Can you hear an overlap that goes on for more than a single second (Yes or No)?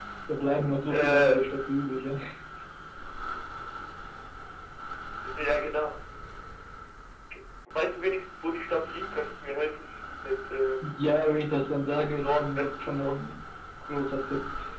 Yes